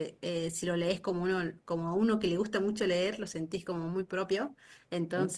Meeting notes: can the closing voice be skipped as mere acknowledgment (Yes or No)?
Yes